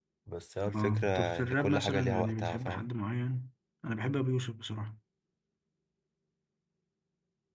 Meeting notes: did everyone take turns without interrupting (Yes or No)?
No